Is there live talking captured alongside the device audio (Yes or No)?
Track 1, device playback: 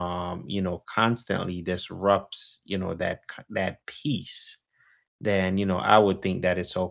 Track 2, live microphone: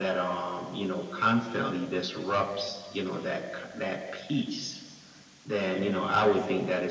Yes